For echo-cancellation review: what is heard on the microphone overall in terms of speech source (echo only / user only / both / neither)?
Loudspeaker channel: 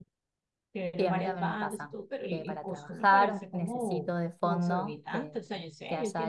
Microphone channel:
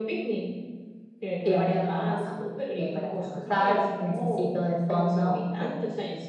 echo only